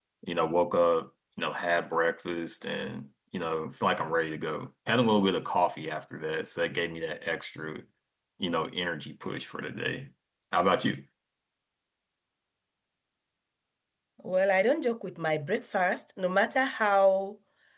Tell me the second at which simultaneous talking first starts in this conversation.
none

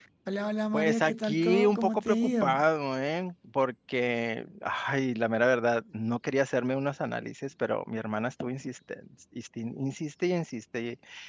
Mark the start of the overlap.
0.7 s

